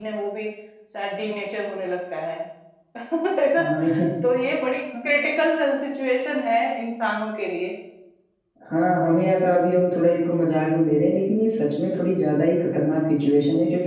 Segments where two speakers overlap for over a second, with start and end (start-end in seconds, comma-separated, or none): none